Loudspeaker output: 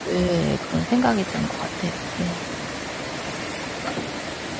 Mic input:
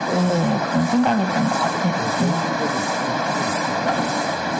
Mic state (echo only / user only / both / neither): both